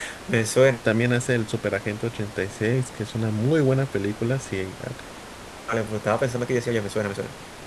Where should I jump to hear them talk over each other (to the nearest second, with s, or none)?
none